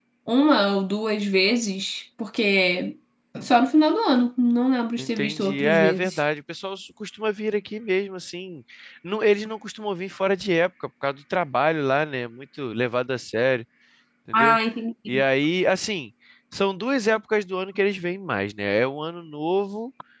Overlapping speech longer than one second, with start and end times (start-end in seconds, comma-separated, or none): 5.0-6.2